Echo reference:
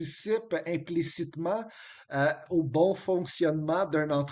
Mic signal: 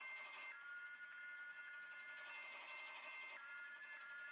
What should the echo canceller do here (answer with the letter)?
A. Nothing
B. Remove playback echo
A